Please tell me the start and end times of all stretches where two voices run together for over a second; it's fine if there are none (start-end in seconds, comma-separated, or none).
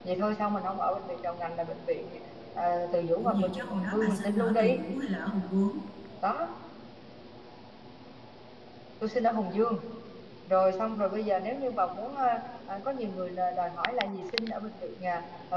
3.2-4.8